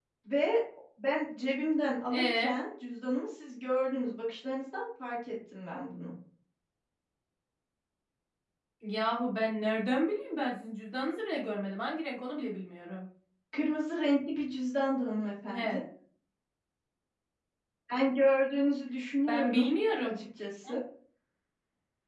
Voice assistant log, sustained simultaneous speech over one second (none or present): none